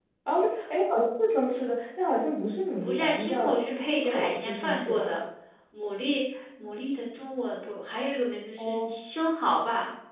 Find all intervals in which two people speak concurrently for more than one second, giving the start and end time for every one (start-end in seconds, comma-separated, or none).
2.8-5.2